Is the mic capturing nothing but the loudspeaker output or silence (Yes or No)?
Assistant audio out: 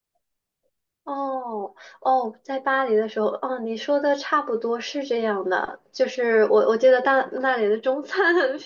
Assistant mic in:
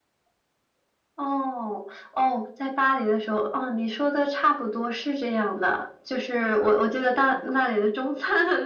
Yes